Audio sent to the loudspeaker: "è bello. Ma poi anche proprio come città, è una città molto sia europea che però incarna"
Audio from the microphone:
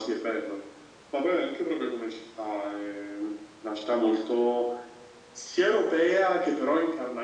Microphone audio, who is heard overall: echo only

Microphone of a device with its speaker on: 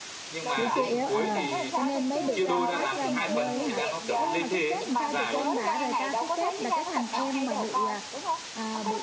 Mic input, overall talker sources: both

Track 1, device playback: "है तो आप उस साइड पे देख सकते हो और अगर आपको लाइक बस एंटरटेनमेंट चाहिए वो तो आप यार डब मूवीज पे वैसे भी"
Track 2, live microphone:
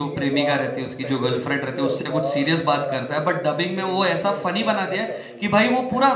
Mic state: both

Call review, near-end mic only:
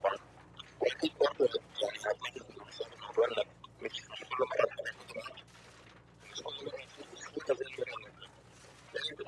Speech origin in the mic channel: echo only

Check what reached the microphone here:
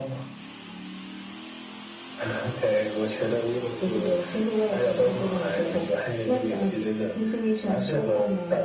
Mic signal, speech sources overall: echo only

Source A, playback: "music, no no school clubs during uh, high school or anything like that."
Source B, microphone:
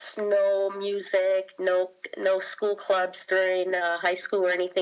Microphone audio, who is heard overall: echo only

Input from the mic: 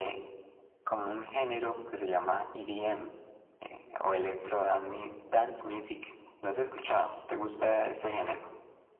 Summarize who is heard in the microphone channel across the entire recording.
echo only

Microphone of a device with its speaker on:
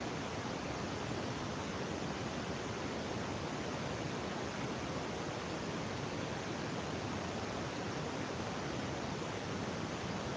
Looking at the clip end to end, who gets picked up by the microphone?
neither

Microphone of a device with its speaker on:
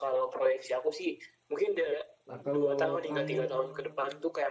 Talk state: both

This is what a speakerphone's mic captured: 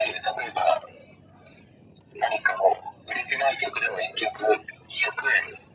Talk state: echo only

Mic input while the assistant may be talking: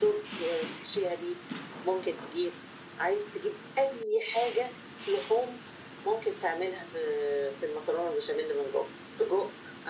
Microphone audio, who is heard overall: echo only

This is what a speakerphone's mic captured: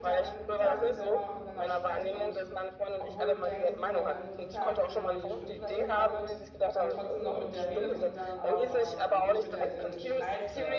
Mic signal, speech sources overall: both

